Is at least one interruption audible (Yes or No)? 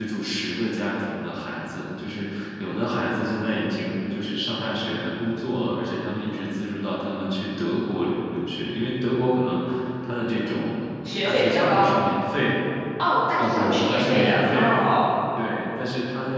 Yes